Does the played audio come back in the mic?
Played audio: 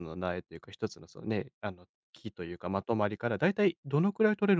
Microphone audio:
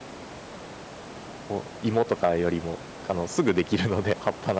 No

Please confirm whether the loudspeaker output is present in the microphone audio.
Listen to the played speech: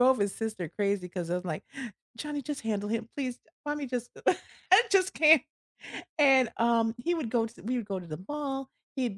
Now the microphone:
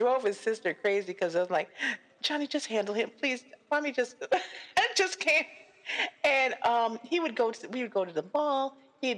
Yes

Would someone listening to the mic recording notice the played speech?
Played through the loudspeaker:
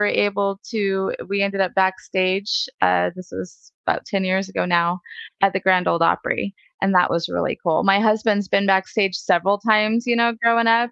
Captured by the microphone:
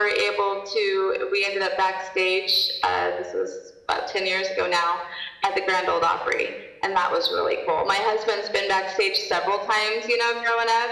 Yes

